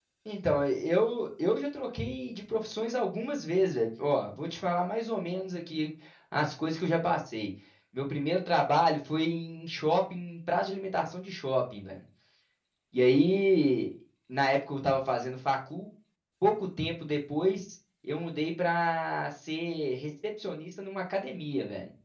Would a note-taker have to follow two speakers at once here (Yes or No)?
No